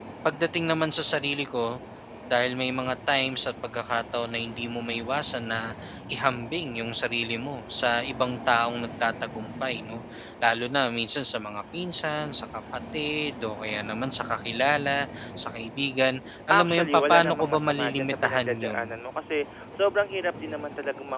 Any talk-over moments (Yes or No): Yes